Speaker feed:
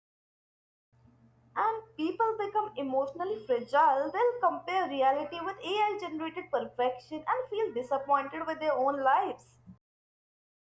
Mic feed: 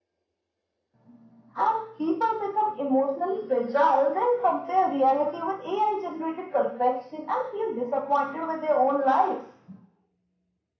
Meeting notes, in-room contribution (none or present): none